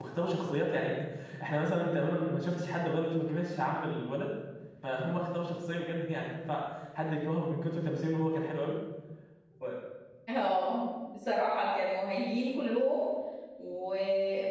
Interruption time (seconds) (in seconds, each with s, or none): none